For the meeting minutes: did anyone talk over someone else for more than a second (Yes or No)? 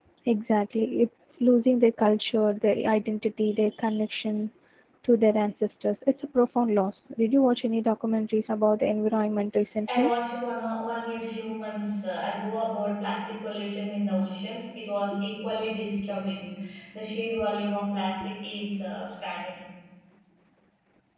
No